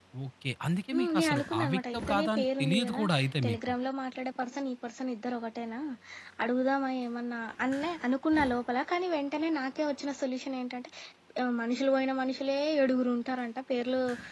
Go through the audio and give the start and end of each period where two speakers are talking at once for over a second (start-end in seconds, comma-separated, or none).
0.9-3.0